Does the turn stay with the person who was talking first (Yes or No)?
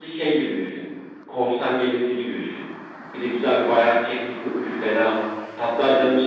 Yes